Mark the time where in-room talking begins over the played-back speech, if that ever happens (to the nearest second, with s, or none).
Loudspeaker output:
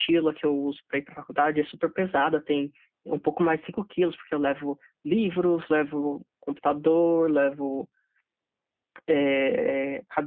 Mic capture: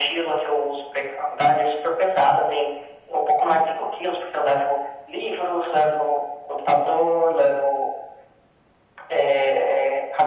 none